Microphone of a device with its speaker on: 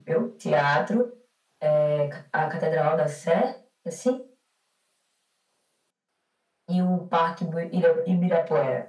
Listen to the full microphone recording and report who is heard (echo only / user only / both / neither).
echo only